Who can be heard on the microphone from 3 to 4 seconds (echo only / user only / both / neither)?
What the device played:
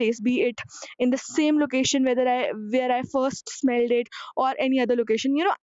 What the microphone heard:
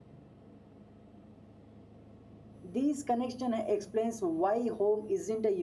user only